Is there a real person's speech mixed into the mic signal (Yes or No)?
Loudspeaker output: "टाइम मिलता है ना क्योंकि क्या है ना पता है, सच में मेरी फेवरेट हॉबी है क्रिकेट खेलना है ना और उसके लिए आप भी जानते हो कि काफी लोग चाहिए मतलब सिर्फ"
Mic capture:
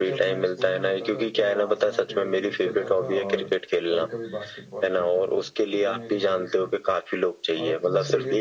Yes